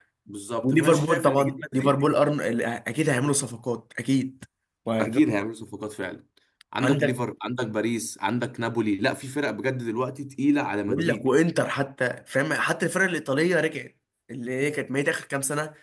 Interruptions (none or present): present